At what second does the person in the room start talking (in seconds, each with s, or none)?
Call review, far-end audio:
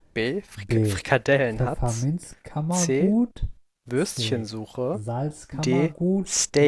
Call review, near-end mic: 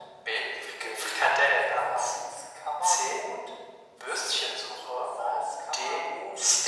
none